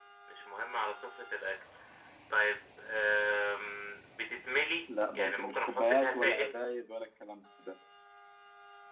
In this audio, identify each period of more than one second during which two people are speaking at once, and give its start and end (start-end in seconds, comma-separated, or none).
5.2-6.6